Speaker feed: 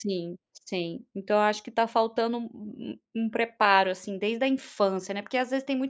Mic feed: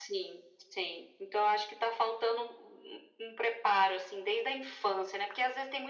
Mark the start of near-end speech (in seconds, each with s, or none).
none